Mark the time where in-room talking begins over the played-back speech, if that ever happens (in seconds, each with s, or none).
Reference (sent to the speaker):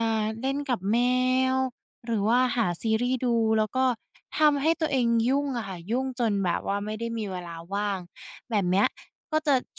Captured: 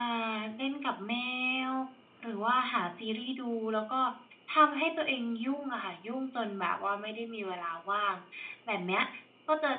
none